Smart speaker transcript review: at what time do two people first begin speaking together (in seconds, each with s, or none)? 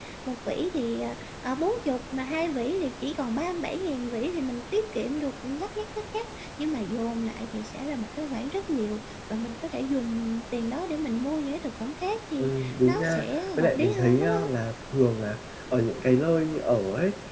12.4 s